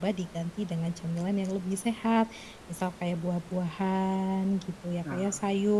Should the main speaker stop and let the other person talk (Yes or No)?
No